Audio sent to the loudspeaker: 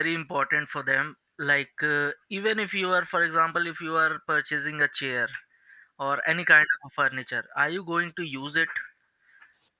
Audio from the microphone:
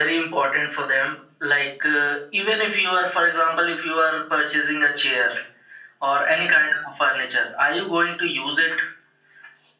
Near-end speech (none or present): none